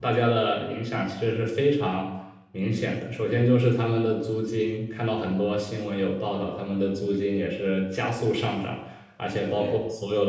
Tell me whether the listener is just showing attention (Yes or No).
Yes